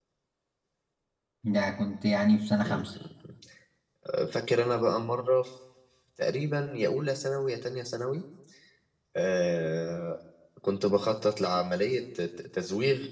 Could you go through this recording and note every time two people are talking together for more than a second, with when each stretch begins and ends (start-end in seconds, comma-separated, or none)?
none